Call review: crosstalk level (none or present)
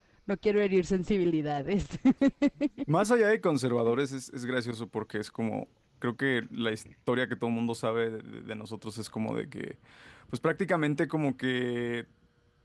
none